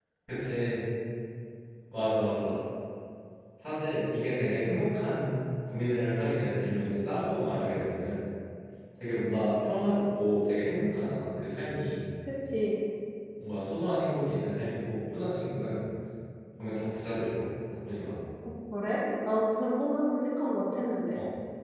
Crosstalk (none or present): none